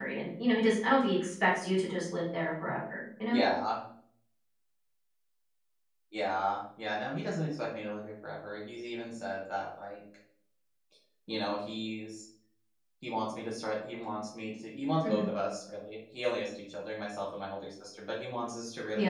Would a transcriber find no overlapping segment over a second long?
Yes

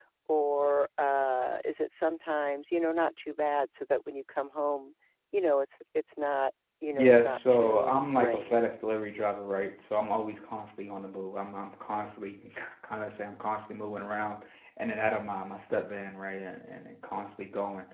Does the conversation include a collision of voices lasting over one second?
Yes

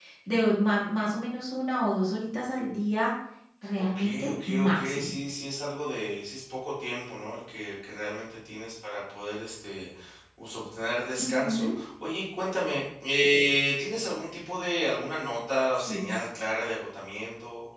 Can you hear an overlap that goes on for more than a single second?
Yes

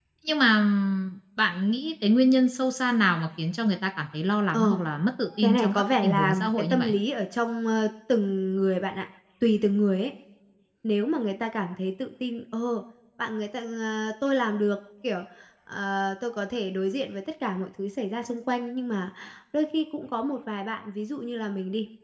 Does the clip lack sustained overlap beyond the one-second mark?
No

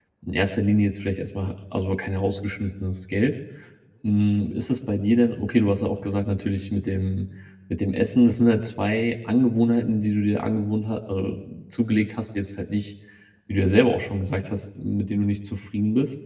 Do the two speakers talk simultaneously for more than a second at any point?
No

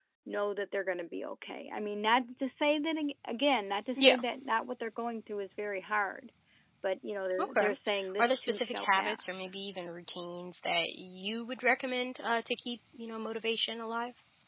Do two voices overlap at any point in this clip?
Yes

